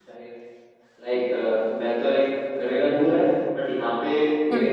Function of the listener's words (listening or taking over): listening